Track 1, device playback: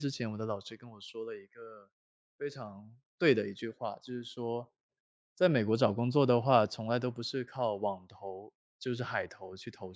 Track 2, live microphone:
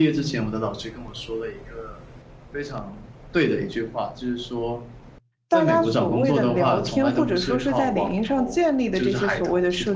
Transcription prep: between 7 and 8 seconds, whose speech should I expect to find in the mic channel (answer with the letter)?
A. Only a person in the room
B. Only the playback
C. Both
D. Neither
C